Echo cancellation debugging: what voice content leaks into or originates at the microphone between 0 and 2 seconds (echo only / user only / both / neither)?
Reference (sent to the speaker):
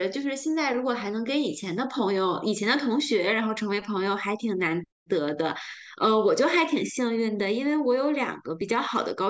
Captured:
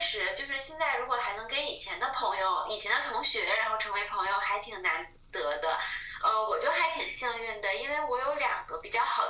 echo only